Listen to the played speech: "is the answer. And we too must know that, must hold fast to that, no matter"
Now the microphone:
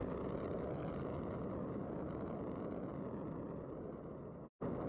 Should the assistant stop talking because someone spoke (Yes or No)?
No